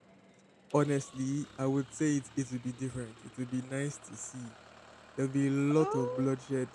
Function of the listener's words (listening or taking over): listening